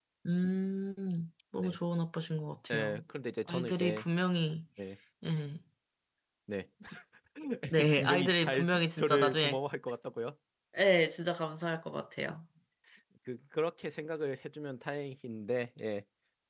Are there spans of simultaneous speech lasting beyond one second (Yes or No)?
Yes